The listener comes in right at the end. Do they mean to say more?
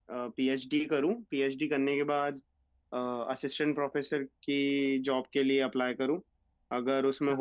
No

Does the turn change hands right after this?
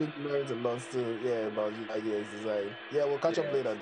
Yes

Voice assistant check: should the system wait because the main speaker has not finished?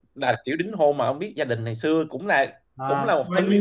No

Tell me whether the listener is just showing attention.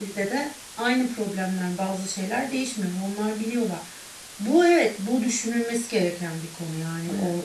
Yes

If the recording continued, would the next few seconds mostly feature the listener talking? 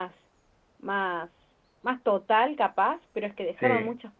No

